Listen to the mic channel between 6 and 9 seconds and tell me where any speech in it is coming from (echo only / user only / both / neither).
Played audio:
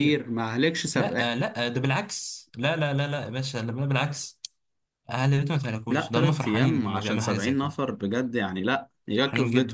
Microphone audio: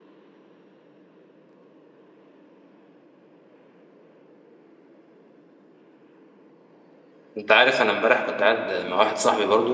user only